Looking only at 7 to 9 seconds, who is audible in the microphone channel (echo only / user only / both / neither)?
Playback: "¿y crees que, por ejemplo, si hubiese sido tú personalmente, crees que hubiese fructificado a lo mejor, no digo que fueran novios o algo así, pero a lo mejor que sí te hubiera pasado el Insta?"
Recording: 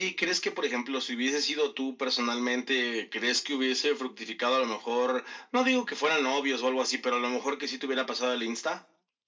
echo only